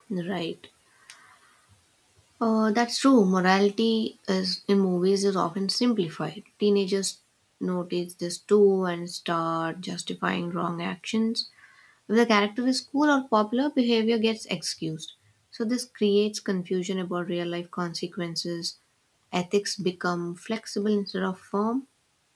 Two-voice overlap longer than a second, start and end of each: none

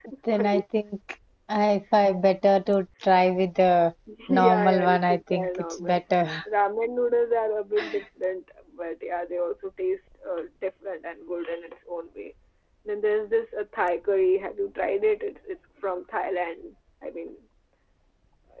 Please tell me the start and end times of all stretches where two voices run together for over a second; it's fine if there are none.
4.3-6.0

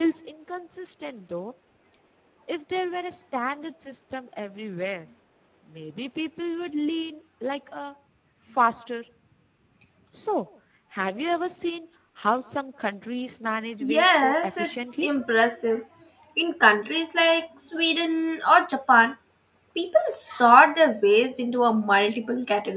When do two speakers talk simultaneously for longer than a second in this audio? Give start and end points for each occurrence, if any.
13.8-15.1

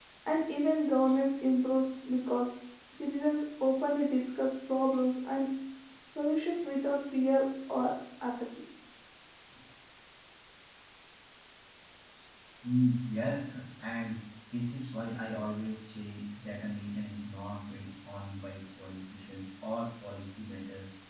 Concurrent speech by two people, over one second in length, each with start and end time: none

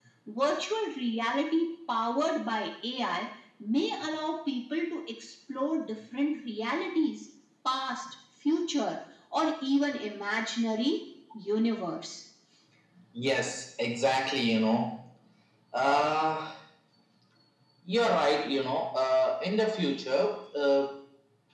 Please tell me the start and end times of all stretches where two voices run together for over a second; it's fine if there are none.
none

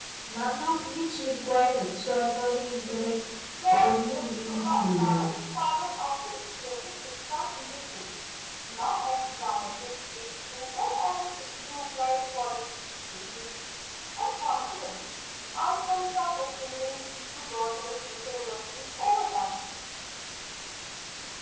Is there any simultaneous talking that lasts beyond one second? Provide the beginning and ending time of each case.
3.7-5.3

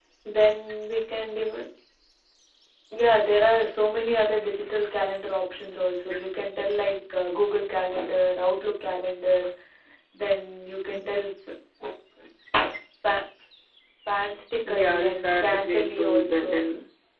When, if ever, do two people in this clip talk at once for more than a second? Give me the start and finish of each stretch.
14.7-16.6

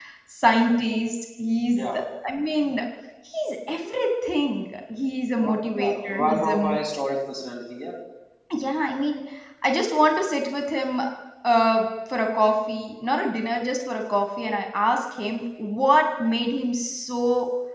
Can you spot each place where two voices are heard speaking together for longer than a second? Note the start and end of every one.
5.4-6.8

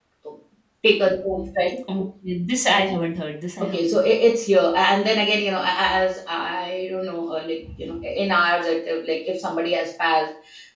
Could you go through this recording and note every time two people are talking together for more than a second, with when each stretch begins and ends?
none

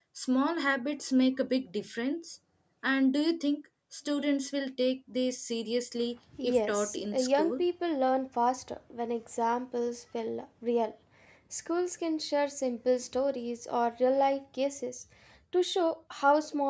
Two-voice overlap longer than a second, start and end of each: 6.4-7.6

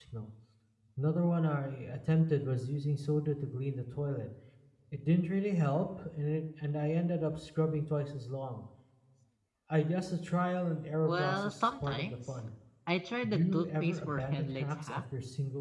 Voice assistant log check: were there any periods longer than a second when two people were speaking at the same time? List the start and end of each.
11.0-12.4, 13.2-15.0

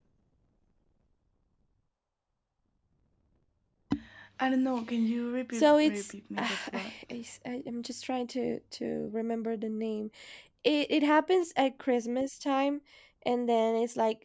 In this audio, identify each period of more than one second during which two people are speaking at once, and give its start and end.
5.5-6.9

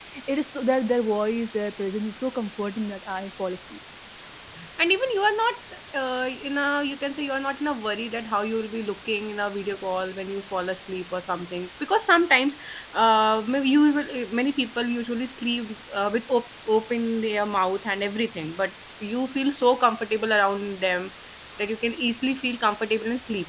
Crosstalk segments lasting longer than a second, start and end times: none

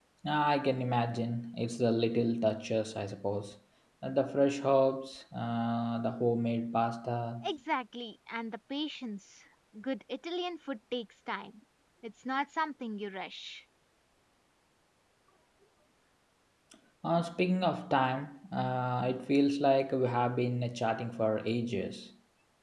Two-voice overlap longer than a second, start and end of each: none

